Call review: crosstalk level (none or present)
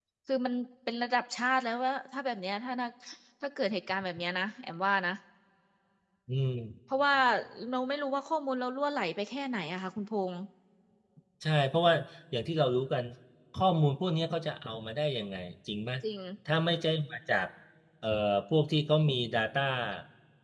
none